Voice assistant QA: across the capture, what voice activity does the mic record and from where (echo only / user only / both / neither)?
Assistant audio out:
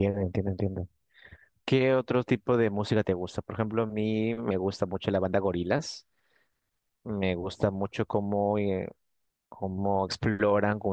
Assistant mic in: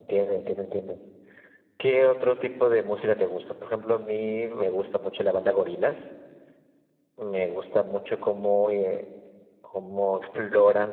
echo only